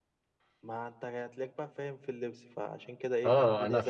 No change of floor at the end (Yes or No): No